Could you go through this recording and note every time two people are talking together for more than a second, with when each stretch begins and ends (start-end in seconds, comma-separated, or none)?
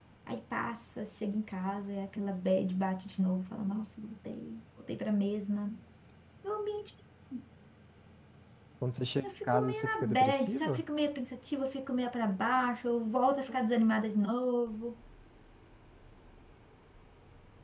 9.2-10.8